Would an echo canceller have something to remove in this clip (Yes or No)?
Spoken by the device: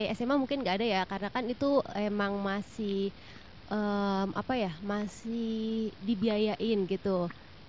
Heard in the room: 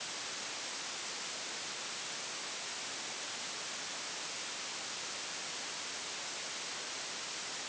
No